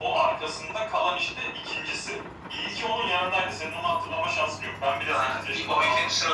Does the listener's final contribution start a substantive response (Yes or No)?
Yes